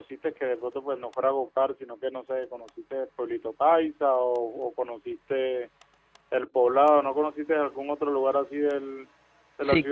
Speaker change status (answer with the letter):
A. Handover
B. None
A